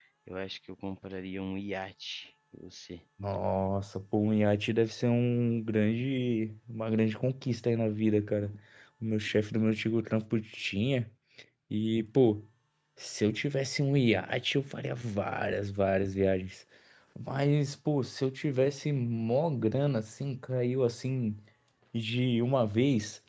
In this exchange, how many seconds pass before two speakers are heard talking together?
none

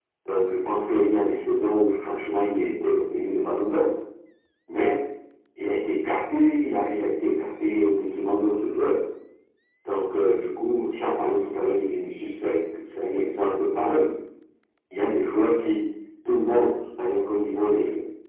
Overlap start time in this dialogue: none

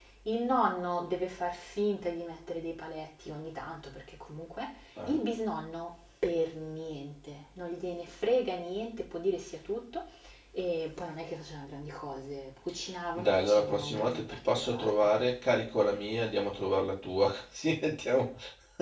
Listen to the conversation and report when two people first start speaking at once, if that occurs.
13 s

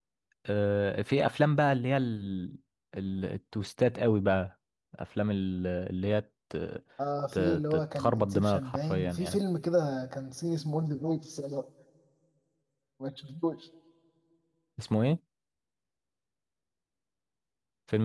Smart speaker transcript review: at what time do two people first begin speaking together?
7 s

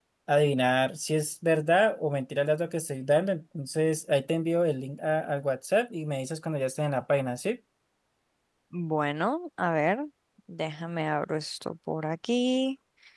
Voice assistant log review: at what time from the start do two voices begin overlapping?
none

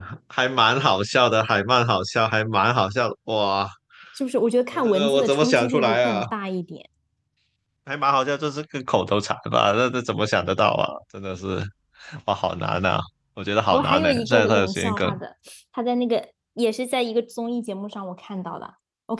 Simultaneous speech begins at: 5 s

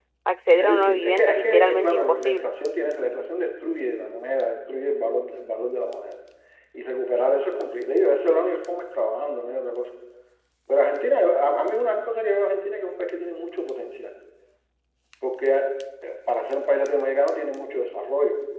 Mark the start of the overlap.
1 s

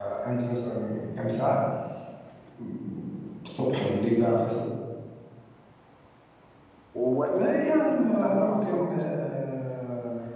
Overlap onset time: 7 s

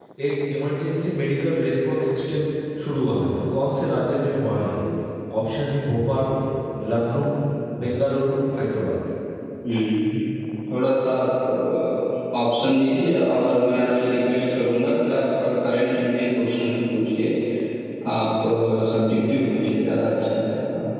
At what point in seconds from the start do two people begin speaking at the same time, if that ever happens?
none

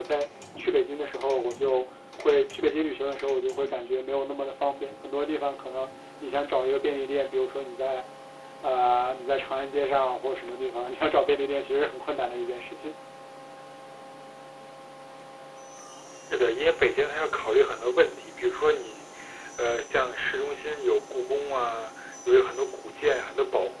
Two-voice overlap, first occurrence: none

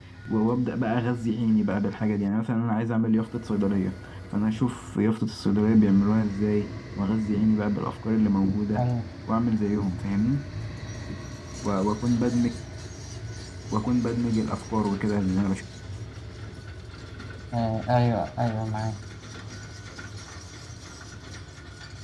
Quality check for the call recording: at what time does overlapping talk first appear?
none

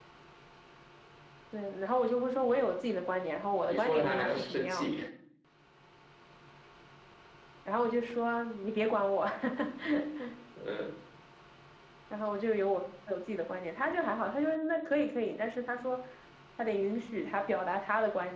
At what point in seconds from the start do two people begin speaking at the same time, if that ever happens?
4 s

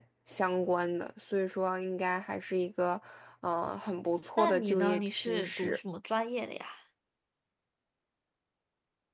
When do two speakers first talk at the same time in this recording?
4 s

